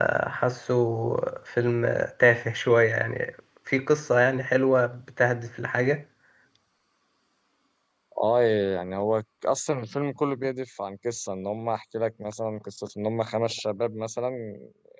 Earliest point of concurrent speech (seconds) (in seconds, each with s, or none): none